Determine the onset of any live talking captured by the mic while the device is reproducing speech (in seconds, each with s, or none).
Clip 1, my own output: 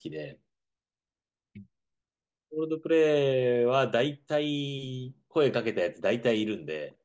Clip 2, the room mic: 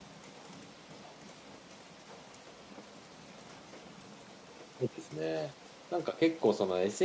4.8 s